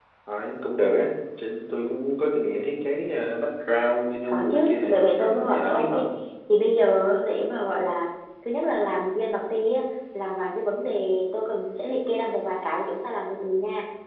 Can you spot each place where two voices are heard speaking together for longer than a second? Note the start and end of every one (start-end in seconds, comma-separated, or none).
4.3-6.0